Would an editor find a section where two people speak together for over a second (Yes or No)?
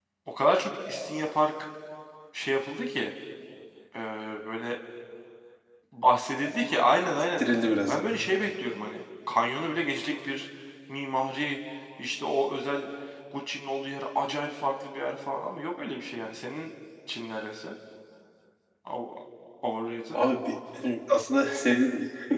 No